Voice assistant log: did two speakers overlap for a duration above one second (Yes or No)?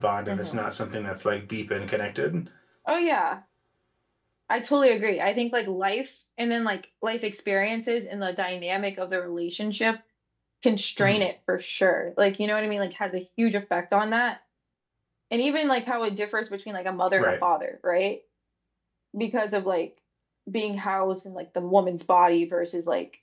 No